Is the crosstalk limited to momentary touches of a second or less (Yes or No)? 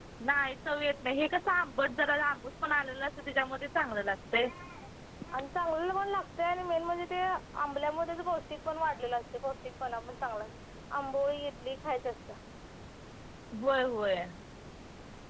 Yes